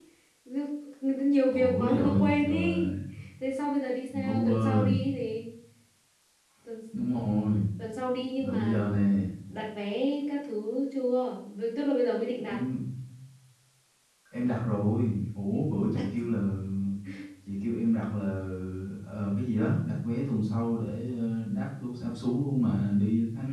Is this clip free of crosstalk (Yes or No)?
No